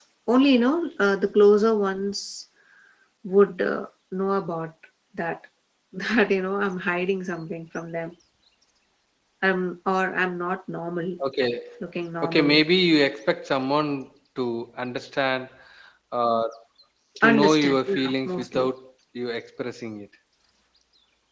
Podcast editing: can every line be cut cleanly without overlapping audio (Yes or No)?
No